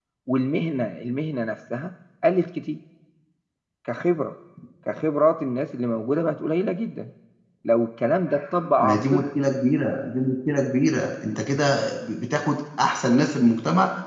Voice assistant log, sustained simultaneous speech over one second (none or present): none